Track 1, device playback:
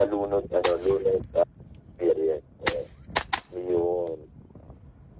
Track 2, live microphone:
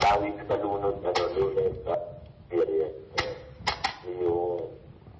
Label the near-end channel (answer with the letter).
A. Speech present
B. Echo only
B